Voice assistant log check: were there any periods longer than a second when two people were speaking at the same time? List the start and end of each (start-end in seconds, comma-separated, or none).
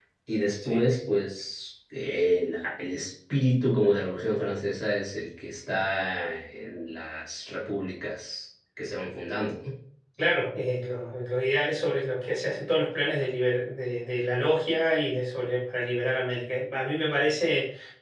none